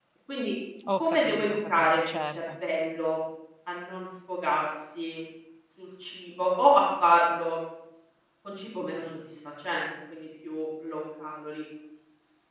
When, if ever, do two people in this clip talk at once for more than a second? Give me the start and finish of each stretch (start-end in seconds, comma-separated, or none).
1.0-2.4